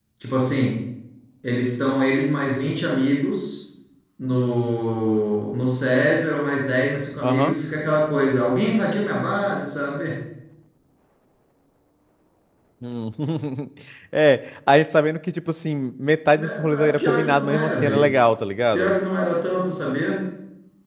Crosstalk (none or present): present